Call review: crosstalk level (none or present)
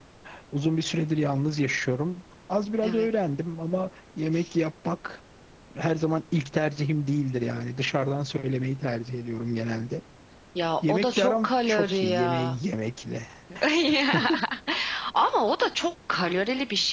present